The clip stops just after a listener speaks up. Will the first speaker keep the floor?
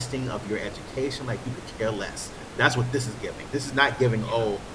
Yes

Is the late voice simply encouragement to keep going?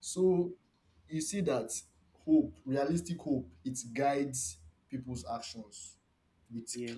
Yes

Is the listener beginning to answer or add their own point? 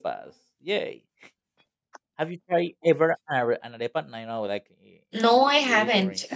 Yes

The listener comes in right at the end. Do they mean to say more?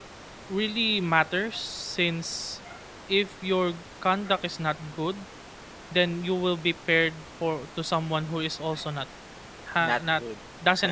No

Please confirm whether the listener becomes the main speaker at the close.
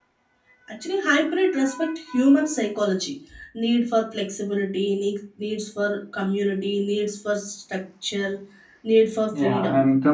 Yes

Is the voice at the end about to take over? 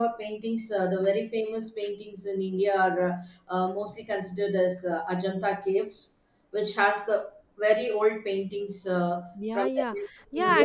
Yes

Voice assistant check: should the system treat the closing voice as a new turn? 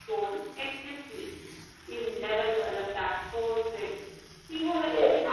No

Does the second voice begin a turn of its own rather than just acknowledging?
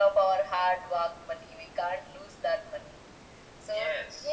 No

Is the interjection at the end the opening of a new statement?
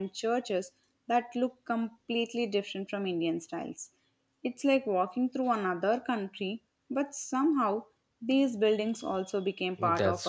Yes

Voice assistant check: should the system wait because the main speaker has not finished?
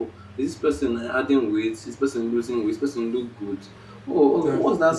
Yes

